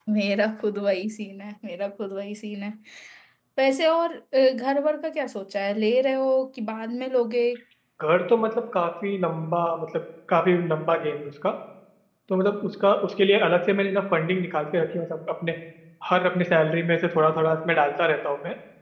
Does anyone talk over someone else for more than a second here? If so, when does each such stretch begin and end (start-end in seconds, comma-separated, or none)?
none